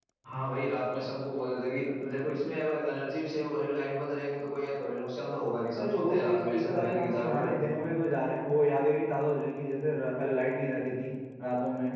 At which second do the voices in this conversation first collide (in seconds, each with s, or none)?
5.7 s